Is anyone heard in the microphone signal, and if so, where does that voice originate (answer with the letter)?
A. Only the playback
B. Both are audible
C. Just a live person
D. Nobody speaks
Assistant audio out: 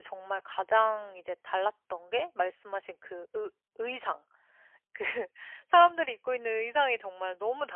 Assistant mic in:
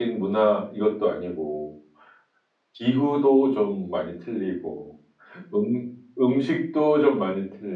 C